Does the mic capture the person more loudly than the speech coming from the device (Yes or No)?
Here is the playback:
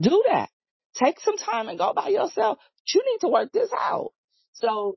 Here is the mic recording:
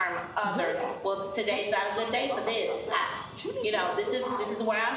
Yes